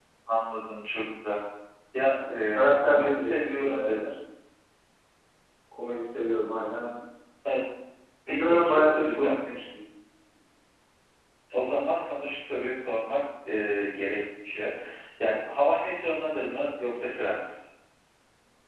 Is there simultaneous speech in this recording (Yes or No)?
Yes